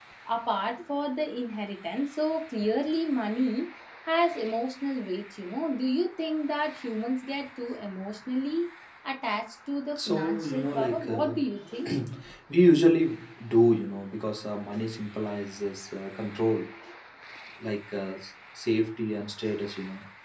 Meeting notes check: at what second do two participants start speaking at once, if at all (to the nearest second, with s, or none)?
10 s